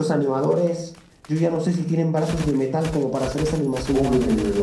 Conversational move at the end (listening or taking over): taking over